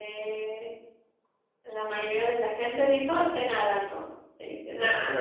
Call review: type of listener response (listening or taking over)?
taking over